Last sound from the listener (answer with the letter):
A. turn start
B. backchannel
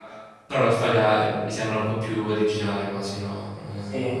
A